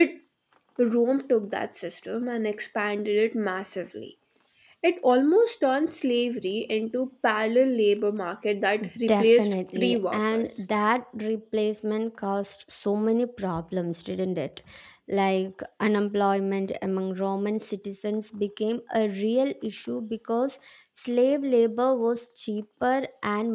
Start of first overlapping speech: 9 s

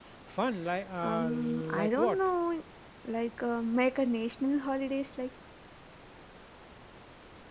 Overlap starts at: 1 s

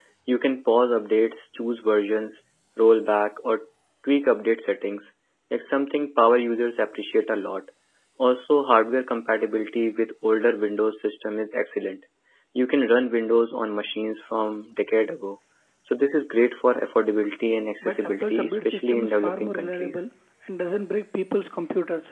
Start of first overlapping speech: 18 s

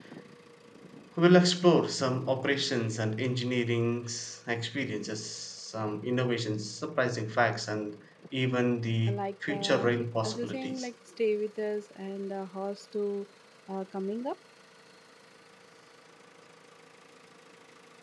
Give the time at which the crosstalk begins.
9 s

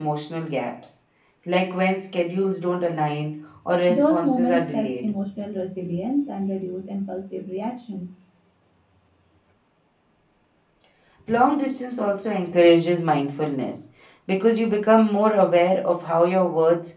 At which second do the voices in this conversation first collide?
4 s

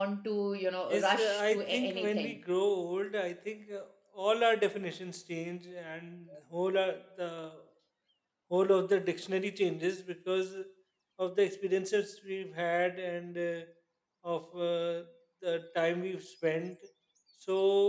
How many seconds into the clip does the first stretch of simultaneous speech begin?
1 s

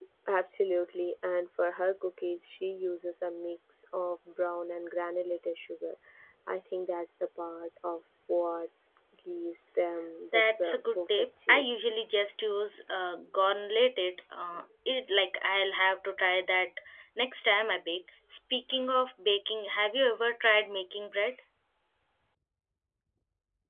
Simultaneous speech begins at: 10 s

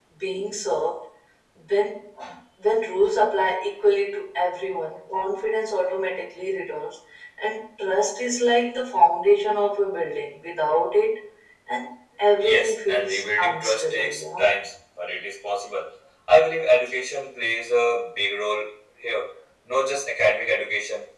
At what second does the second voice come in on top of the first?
12 s

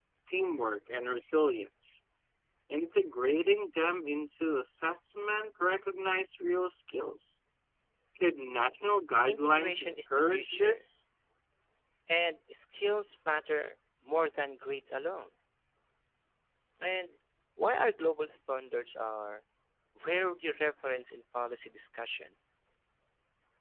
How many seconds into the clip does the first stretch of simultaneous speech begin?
9 s

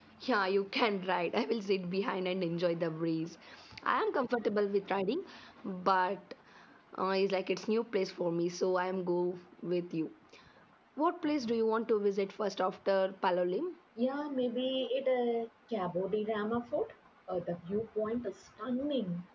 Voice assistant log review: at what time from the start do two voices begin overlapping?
none

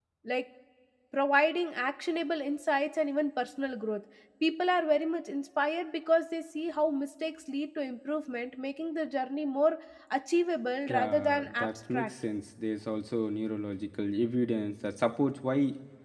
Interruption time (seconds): 11 s

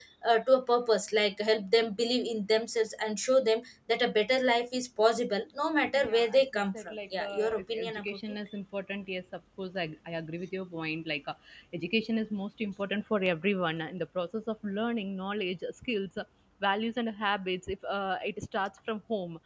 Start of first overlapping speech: 6 s

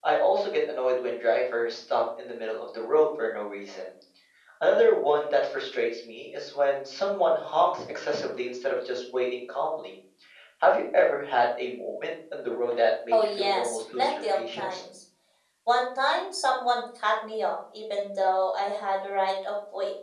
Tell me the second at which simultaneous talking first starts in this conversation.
13 s

